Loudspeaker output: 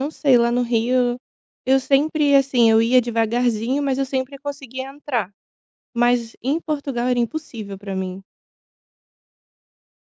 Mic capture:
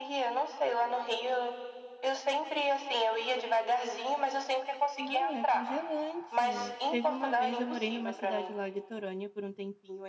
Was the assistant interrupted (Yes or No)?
Yes